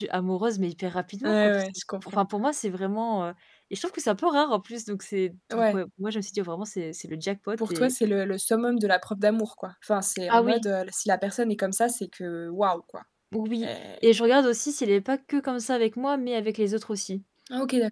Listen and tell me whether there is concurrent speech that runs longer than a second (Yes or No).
No